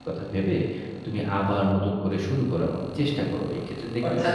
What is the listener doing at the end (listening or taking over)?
taking over